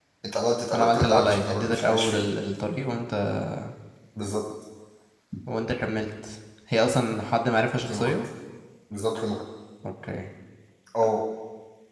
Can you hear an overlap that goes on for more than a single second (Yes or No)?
Yes